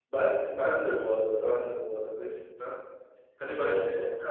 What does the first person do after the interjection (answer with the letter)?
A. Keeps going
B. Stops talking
A